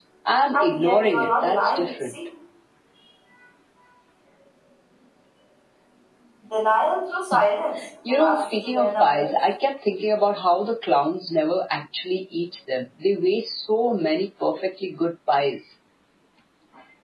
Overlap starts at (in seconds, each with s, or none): 0.5 s